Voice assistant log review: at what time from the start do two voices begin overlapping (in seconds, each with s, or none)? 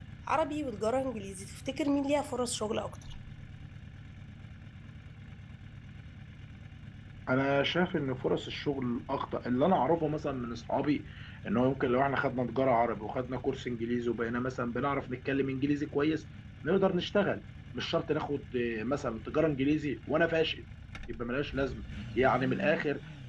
none